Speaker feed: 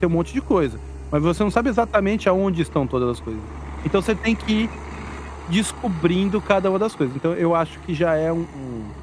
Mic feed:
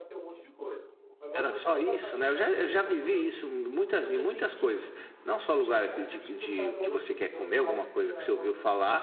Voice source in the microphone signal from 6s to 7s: both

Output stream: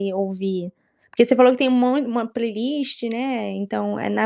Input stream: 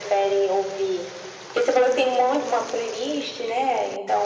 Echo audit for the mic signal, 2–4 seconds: echo only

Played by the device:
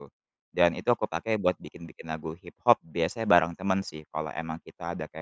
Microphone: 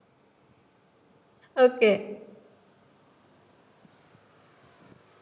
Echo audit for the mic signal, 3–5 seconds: neither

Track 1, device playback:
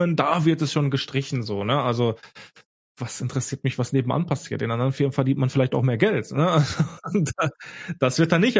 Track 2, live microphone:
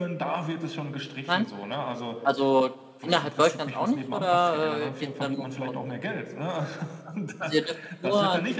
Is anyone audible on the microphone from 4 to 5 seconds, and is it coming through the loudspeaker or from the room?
both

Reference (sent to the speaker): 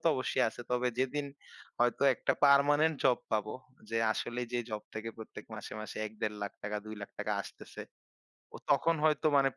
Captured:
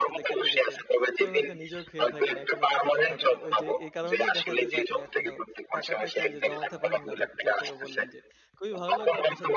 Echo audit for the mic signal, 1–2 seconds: both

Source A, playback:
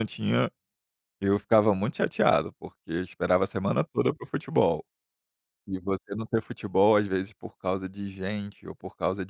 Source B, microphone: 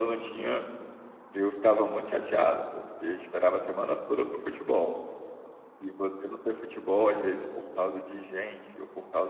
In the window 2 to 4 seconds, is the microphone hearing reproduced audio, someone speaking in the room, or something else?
echo only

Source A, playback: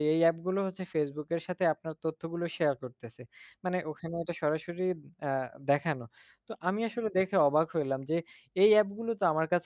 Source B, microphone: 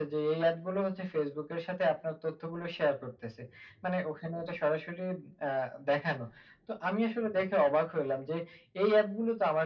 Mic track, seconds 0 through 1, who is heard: echo only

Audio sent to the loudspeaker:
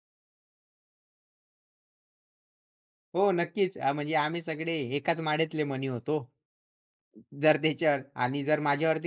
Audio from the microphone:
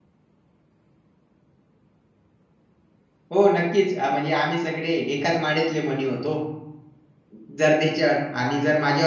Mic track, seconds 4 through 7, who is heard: echo only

